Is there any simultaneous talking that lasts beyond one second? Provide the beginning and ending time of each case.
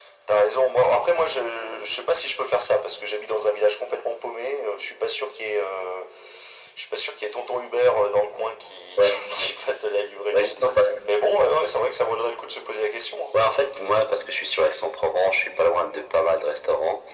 none

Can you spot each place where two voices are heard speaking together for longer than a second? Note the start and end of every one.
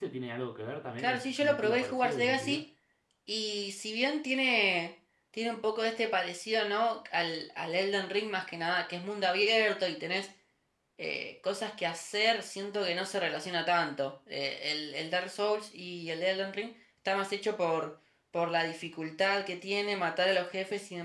1.0-2.6

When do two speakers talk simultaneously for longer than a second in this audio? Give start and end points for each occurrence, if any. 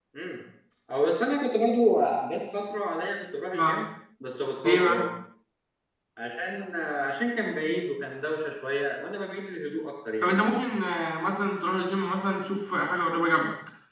none

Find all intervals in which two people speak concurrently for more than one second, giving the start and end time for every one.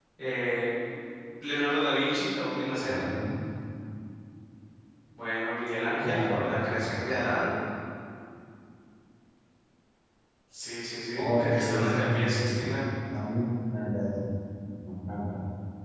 6.0-7.3, 11.2-12.8

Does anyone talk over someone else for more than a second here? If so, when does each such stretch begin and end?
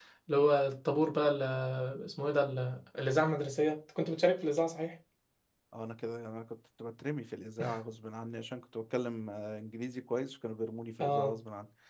none

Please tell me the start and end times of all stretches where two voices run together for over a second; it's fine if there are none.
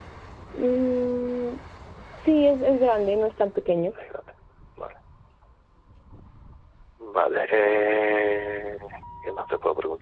none

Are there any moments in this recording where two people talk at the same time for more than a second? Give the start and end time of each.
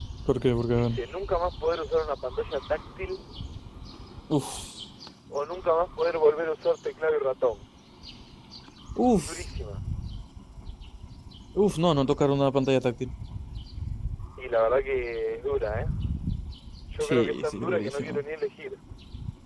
17.0-18.2

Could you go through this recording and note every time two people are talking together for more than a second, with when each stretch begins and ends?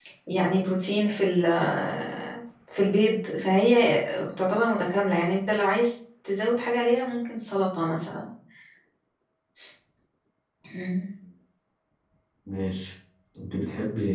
none

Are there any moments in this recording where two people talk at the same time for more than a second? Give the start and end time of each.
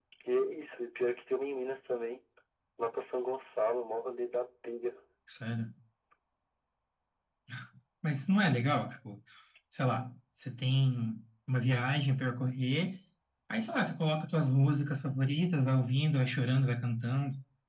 none

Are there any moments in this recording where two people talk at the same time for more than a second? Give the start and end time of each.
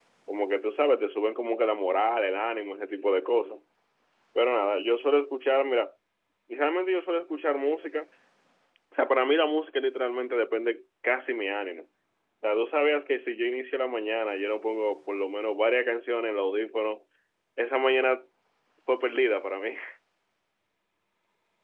none

